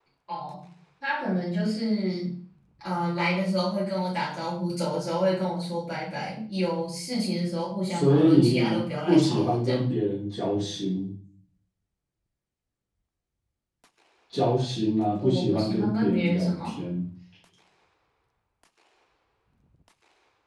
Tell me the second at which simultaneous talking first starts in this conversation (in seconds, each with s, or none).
7.9 s